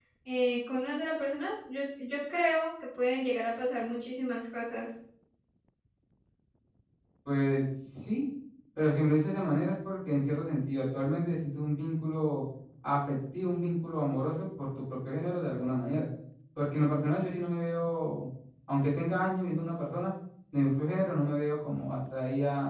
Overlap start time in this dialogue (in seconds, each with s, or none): none